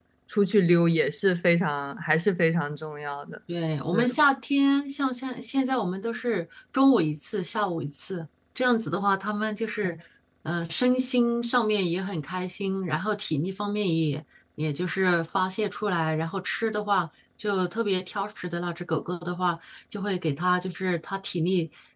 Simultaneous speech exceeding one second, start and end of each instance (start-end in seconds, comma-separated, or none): none